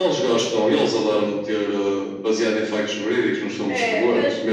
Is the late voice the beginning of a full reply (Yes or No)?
Yes